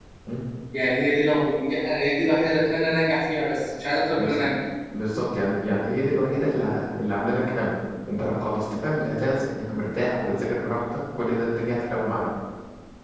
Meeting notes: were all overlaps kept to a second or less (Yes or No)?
Yes